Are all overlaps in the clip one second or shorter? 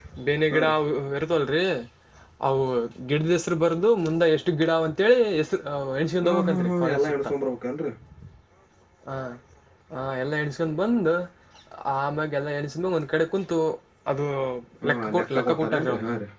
No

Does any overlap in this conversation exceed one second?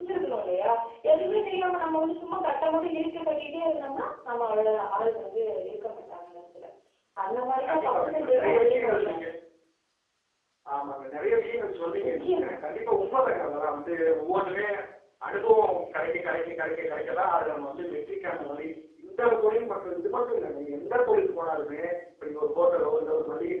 Yes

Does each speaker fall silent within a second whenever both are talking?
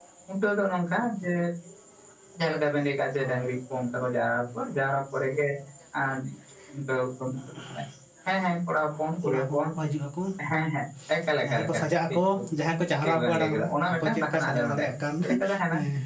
No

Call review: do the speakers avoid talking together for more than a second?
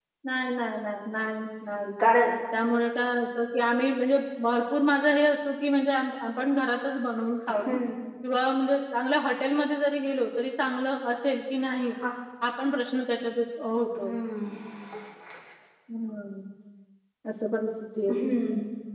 Yes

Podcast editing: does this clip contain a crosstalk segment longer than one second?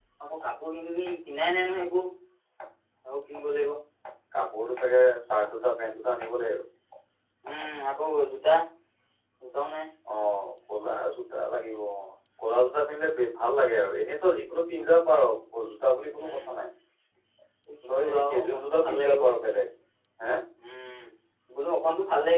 Yes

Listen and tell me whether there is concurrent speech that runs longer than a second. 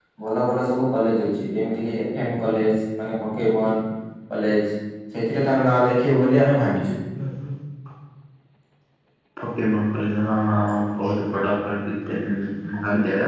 No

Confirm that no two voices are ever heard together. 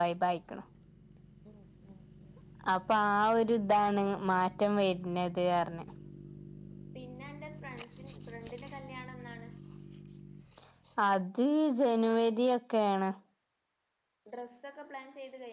Yes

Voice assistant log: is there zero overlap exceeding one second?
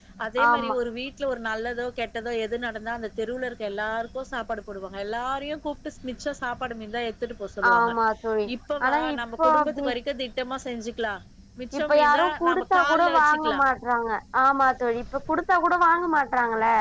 No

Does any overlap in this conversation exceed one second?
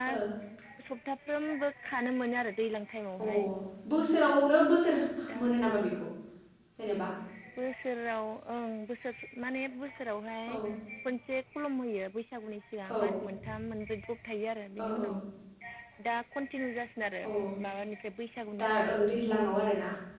No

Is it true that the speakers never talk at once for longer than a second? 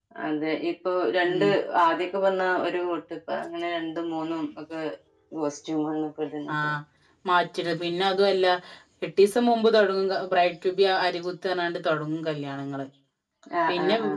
Yes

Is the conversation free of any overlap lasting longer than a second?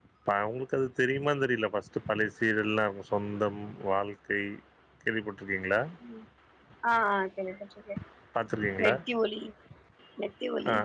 Yes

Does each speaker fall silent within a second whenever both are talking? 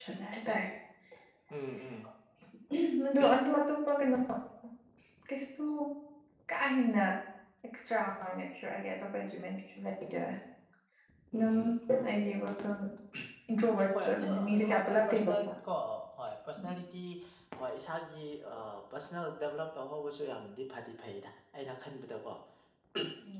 No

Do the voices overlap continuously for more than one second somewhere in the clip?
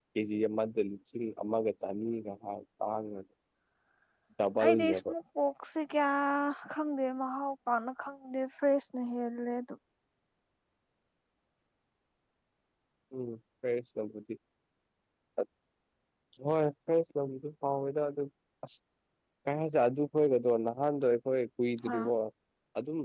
No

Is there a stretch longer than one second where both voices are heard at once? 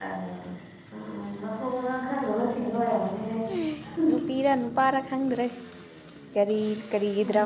No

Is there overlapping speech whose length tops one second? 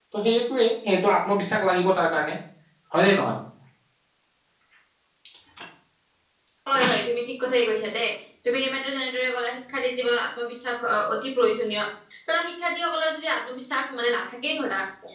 No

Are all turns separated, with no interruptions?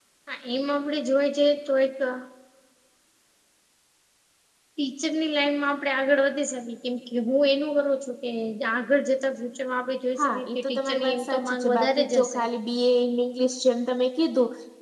No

